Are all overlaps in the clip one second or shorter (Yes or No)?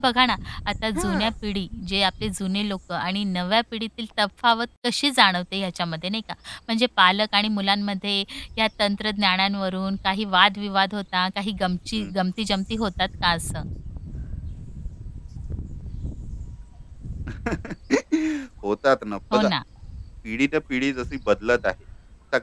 Yes